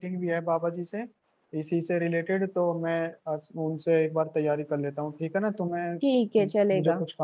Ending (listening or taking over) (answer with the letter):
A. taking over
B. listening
A